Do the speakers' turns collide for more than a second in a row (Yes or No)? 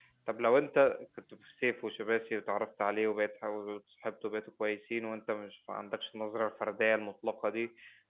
No